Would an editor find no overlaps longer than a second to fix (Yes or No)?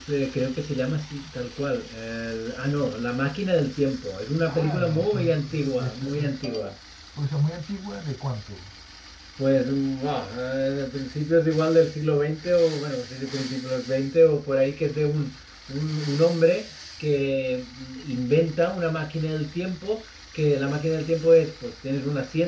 No